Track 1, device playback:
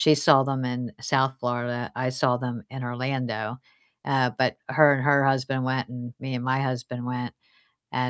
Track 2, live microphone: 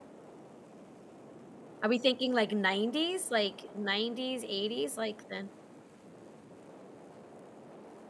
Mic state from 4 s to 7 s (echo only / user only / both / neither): user only